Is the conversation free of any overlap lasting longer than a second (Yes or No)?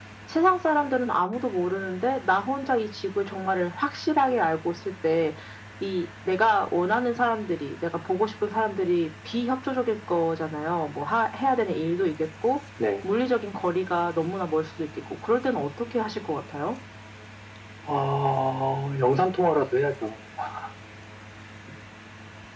Yes